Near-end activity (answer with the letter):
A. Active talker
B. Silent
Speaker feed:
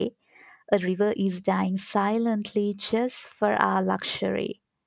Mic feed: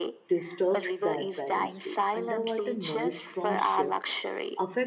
A